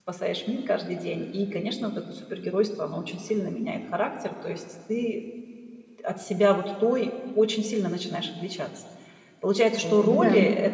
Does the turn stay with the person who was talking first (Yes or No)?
Yes